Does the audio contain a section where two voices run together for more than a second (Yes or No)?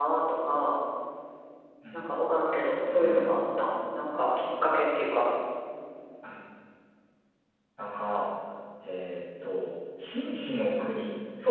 No